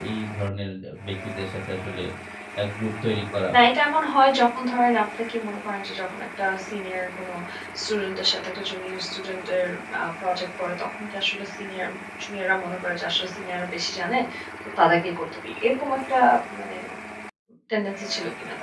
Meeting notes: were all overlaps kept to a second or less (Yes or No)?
Yes